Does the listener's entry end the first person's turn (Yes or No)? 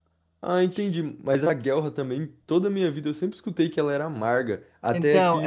Yes